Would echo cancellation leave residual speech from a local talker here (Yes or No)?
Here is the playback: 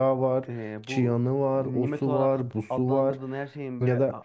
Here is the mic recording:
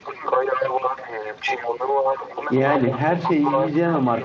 Yes